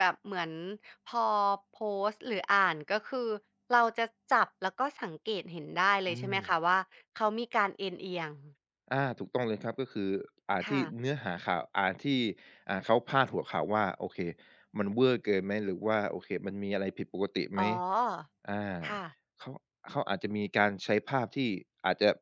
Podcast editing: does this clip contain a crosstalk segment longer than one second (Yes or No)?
No